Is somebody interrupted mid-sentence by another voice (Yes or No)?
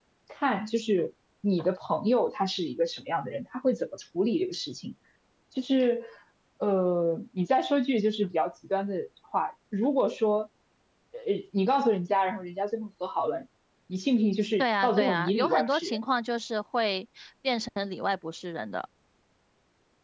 Yes